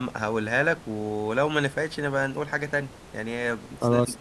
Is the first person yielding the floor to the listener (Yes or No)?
No